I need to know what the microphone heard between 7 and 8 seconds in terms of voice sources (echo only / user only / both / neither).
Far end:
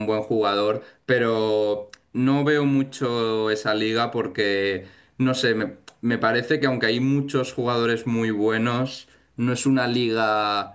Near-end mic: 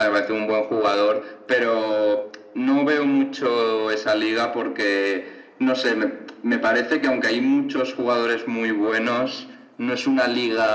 echo only